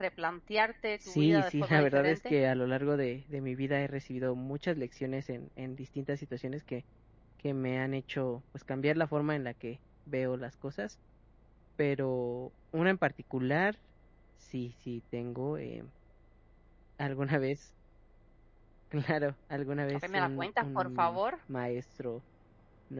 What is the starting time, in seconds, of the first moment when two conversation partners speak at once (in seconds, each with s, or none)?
1.1 s